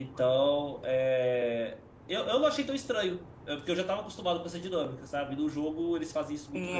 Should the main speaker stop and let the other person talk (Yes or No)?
Yes